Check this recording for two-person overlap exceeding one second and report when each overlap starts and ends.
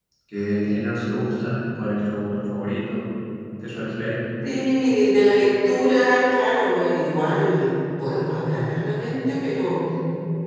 none

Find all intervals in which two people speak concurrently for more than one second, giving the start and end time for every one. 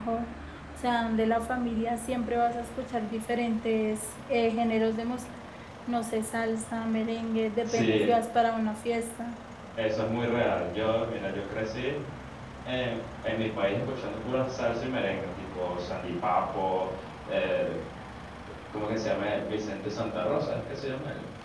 none

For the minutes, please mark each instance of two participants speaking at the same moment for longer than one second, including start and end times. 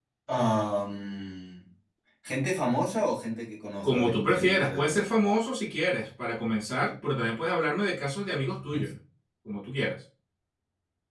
3.8-5.1

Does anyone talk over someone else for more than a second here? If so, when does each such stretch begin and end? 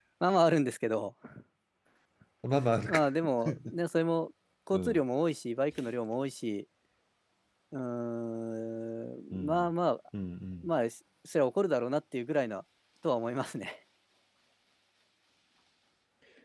none

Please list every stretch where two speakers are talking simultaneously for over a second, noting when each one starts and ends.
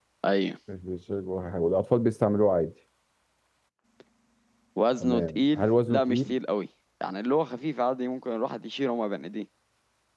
5.0-6.3

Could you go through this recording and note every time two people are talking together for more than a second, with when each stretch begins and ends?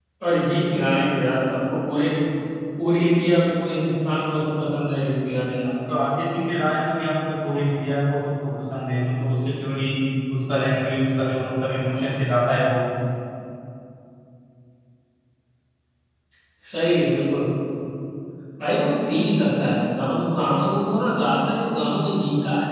none

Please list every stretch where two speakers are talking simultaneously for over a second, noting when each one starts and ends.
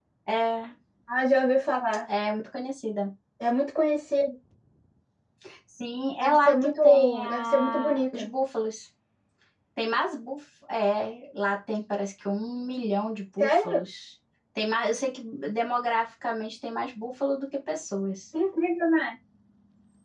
6.2-8.3

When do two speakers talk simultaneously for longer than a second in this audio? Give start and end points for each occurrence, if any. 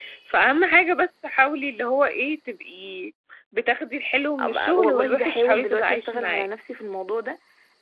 4.4-6.5

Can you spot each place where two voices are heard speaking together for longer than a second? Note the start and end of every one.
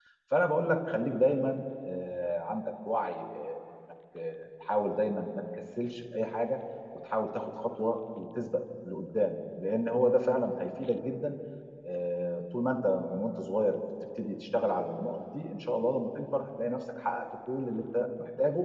none

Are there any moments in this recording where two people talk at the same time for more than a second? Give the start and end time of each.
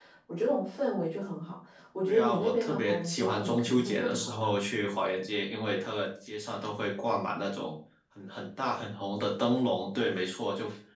2.0-4.5

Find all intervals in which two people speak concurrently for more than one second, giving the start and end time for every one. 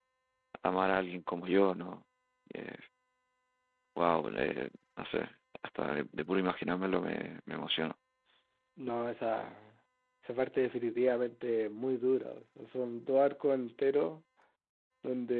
none

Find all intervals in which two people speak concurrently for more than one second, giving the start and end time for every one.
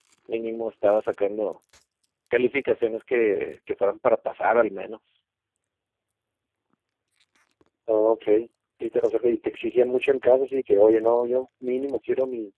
none

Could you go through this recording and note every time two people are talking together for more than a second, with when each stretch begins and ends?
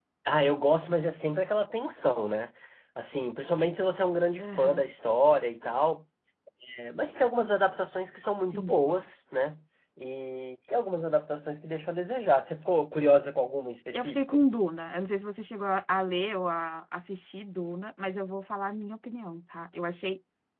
none

